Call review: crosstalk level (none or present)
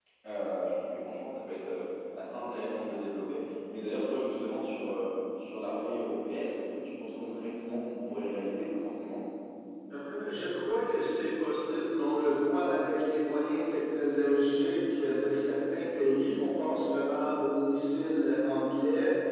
none